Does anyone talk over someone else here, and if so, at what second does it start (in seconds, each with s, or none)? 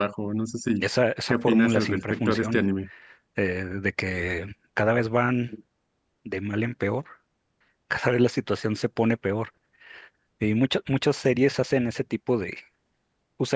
1.3 s